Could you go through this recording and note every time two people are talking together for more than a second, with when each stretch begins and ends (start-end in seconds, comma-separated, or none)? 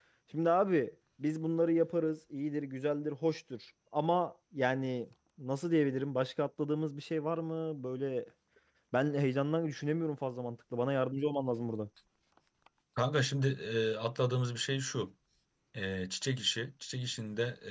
none